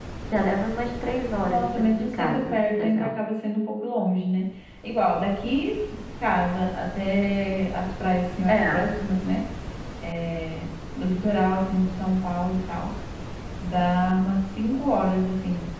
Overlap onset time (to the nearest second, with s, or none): 1 s